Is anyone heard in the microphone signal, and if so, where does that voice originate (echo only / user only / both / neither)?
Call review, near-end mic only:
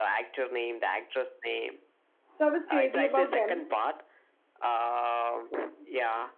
both